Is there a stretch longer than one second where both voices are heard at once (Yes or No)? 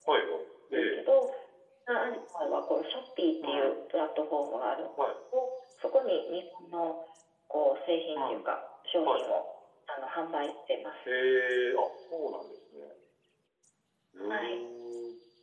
No